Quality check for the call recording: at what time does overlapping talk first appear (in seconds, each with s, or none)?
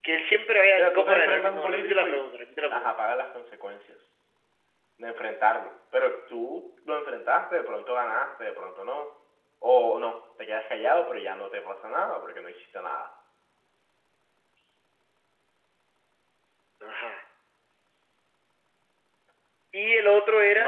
0.8 s